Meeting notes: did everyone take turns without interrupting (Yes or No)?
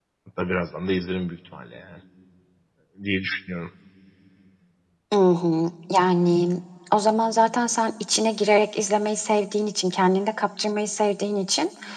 Yes